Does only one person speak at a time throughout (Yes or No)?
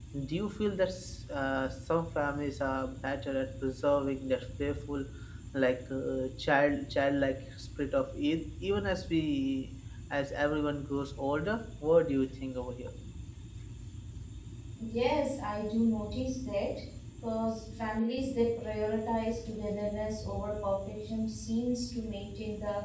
Yes